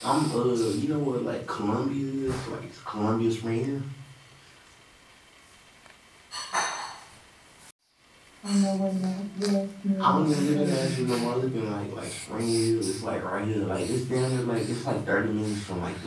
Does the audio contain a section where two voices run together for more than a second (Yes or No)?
Yes